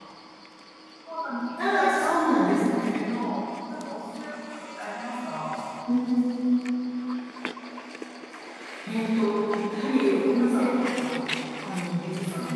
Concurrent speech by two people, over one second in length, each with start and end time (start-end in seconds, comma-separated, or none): 1.6-2.9